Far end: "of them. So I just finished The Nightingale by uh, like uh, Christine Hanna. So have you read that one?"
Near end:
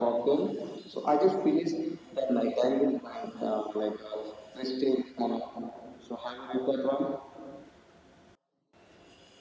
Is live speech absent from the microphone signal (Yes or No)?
Yes